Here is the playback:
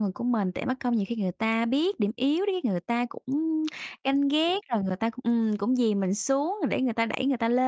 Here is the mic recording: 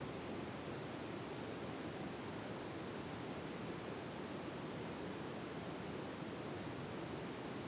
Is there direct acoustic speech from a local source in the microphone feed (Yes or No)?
No